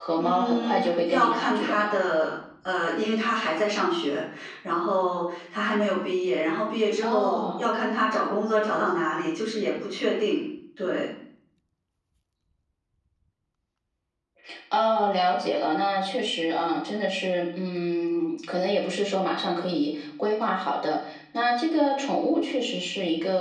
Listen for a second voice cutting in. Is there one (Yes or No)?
Yes